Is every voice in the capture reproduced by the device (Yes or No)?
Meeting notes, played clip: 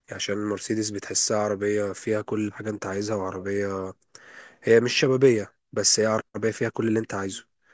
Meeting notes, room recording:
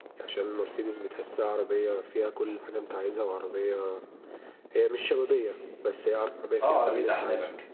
No